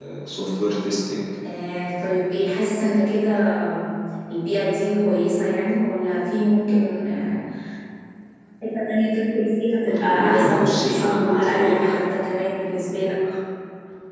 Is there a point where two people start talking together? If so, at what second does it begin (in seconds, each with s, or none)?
9.9 s